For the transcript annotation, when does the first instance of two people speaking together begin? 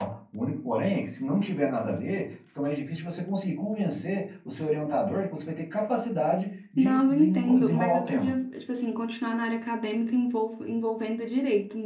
6.8 s

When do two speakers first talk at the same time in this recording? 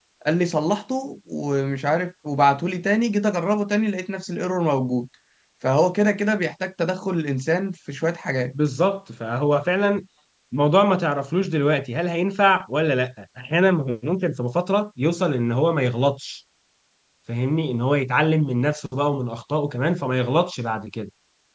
none

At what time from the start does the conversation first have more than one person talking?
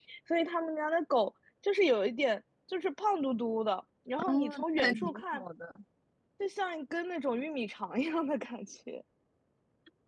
4.2 s

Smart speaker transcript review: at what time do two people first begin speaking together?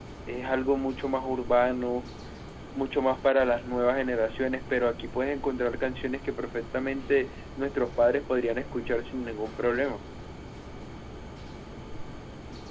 none

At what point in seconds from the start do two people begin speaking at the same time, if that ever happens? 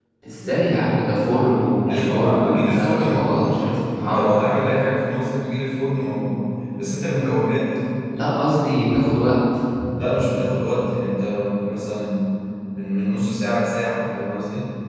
1.9 s

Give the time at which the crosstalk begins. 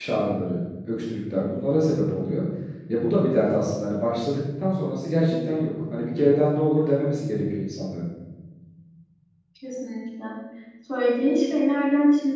none

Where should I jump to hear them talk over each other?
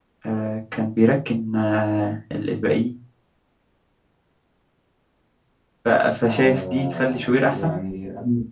6.3 s

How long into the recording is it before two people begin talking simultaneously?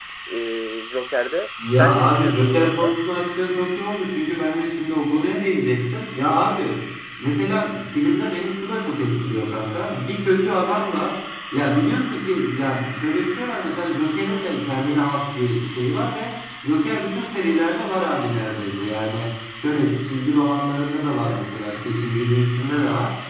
1.6 s

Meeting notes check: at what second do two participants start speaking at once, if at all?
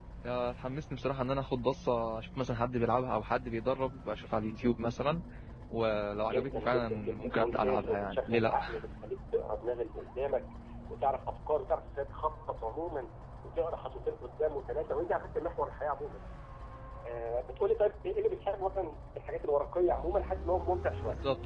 6.2 s

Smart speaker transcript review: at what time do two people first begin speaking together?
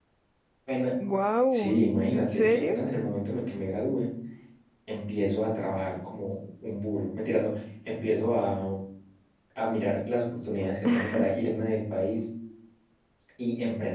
1.5 s

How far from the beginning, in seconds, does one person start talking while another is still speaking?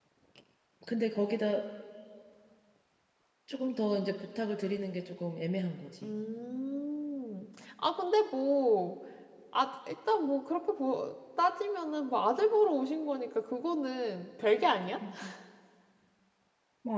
none

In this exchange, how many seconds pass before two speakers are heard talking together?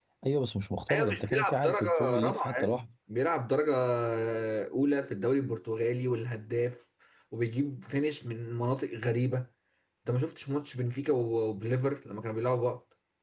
0.9 s

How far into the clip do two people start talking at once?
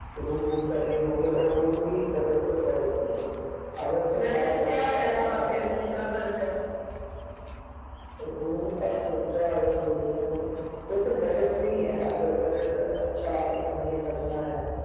4.1 s

